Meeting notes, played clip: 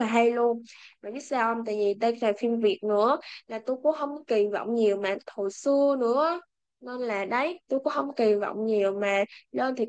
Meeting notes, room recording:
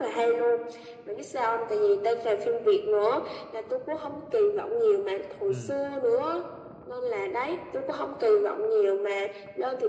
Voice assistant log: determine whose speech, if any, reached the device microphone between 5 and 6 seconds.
both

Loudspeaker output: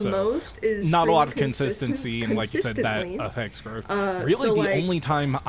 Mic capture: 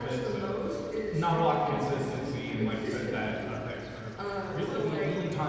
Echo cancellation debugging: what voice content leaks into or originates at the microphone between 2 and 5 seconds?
echo only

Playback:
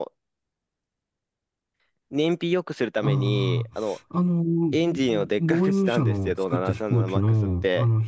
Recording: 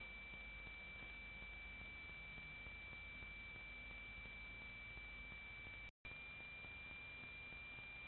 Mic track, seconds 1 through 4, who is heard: neither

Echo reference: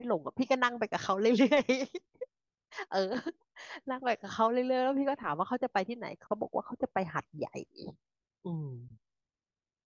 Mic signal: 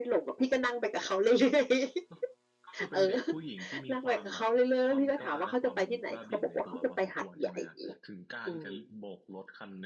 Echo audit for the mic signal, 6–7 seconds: both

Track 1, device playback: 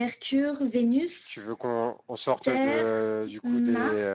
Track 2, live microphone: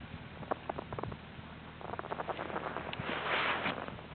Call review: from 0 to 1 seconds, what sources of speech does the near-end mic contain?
neither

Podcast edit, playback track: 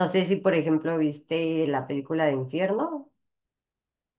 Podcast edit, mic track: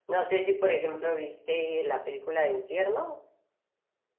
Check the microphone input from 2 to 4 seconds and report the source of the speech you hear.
echo only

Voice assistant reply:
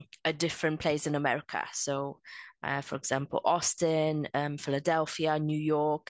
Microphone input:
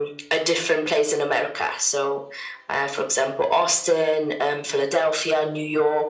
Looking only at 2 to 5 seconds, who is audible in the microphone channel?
echo only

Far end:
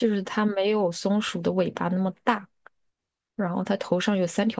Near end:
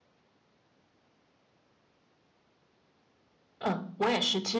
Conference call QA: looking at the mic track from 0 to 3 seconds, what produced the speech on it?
neither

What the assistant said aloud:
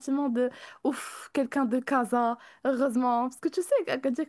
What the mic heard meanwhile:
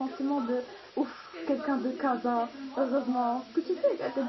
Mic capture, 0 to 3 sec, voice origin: both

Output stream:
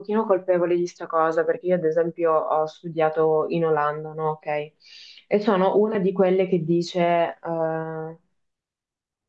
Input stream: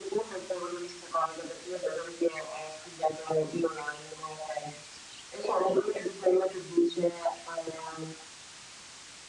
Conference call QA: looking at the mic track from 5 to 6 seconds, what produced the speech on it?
echo only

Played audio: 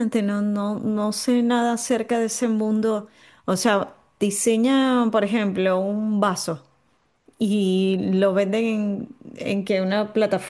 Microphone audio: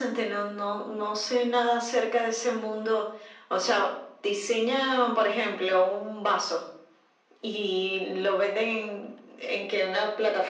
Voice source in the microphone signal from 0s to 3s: echo only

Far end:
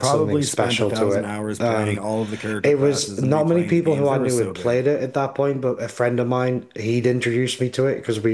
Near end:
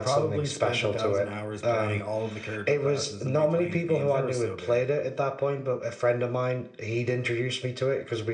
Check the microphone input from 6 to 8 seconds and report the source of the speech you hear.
echo only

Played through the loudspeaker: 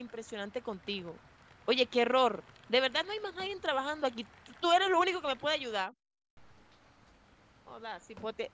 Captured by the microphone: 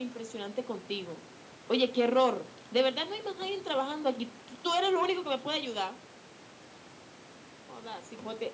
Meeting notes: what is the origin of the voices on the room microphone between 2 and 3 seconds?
echo only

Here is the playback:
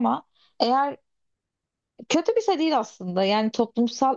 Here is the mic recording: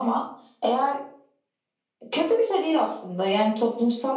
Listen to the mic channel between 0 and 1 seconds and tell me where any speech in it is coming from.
echo only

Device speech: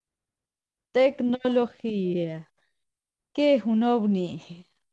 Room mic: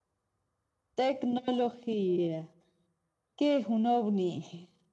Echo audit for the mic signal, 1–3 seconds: echo only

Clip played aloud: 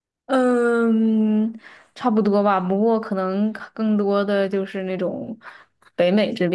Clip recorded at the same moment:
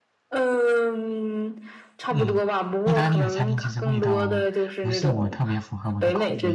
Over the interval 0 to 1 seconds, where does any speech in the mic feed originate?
echo only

